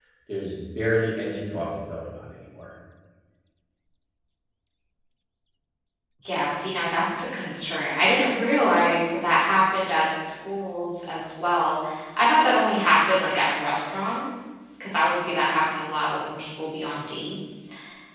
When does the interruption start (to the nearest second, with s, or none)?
none